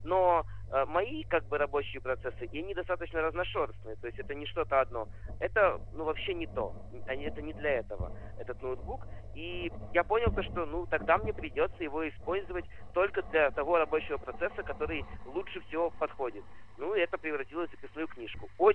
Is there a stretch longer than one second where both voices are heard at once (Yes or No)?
No